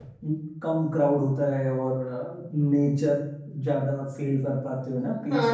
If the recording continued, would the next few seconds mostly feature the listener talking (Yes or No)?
Yes